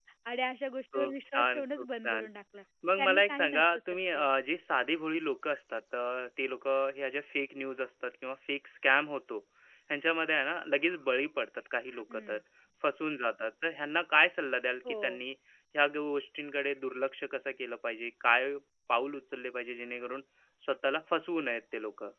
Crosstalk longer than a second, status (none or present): present